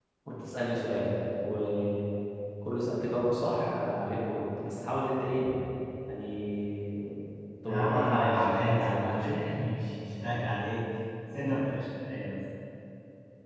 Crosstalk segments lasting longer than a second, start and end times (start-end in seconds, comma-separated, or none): 7.6-9.4